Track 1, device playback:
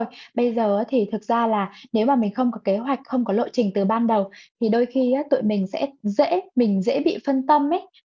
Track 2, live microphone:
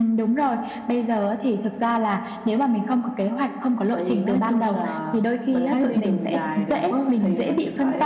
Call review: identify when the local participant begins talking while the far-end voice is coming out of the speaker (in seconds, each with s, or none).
3.9 s